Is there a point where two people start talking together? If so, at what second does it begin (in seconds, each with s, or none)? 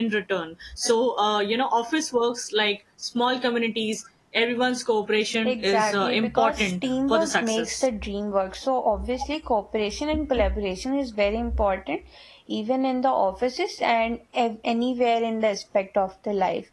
5.5 s